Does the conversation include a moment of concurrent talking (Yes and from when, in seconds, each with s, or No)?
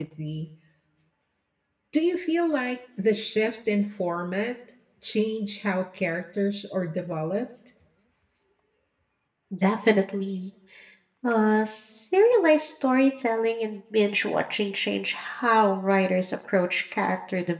No